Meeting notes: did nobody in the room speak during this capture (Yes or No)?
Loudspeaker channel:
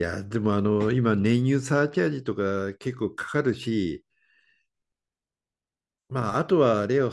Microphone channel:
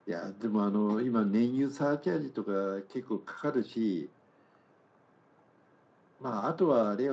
Yes